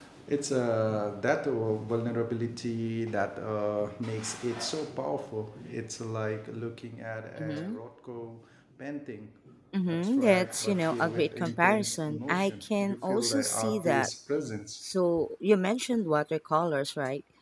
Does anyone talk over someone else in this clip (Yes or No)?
Yes